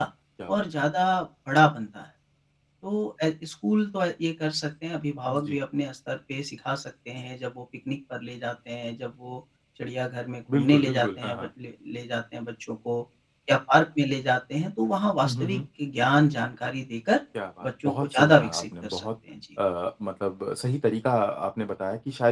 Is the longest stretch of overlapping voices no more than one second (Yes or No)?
No